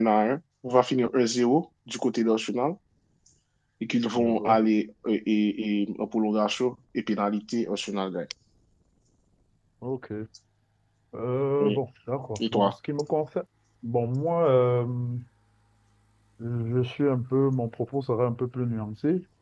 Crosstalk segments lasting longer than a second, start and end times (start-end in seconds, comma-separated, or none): none